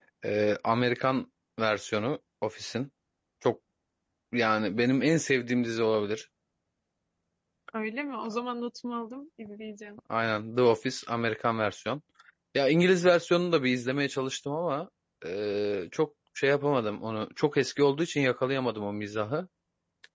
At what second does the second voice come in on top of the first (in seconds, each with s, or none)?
none